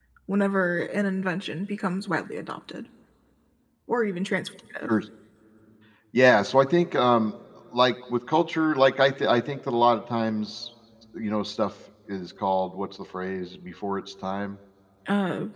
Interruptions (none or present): none